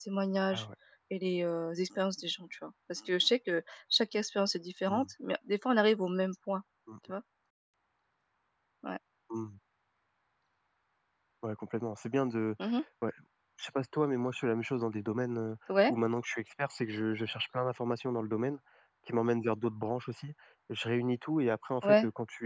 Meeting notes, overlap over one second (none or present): none